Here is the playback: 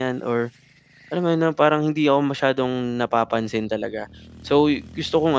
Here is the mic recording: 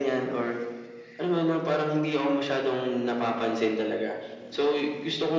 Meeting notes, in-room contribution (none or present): none